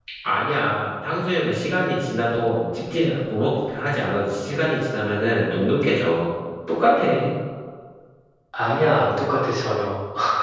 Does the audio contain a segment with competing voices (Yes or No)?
No